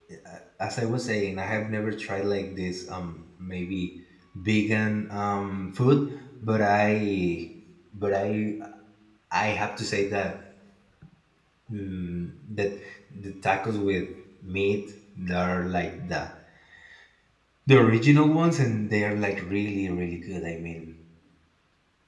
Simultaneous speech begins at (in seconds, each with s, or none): none